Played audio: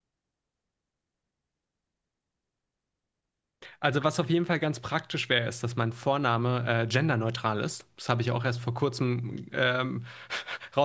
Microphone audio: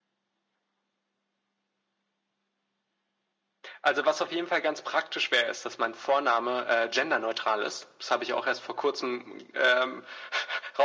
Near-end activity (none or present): none